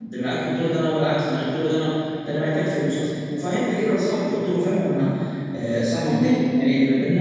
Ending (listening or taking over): listening